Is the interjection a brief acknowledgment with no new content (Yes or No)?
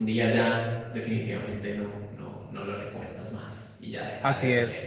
No